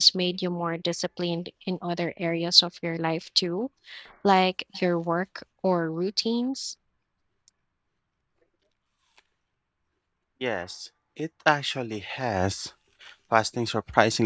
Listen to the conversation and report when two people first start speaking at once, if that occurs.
none

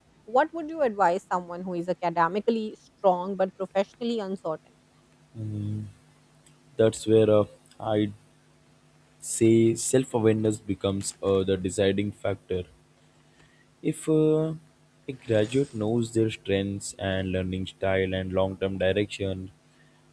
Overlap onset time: none

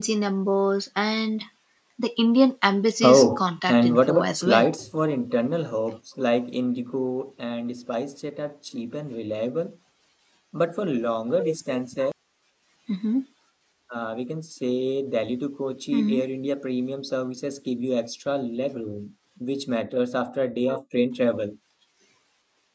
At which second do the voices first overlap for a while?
3.0 s

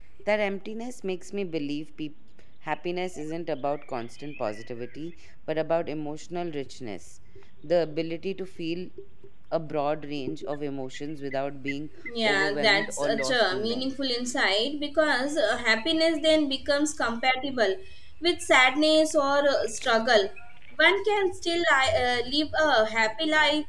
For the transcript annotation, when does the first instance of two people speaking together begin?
12.1 s

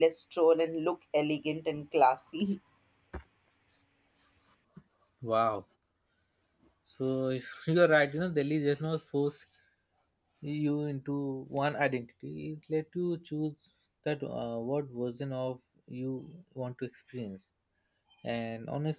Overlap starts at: none

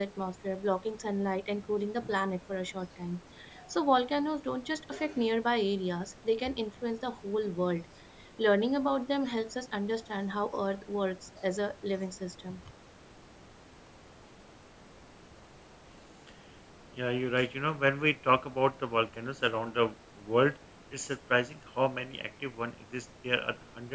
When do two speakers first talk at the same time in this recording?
none

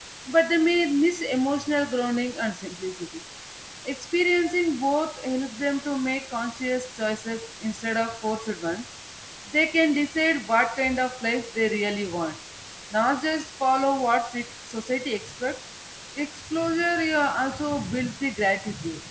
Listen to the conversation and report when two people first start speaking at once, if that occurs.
none

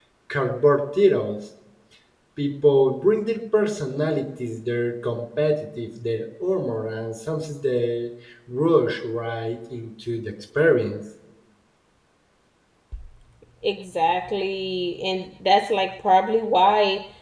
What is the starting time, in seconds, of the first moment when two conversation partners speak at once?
none

